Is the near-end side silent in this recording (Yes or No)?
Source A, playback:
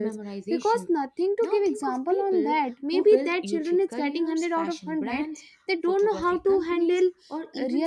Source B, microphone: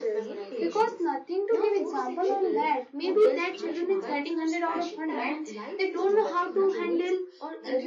No